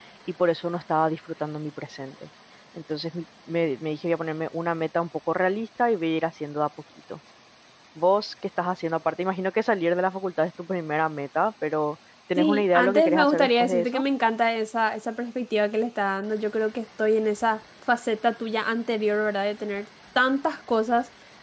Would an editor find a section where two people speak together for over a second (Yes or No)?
Yes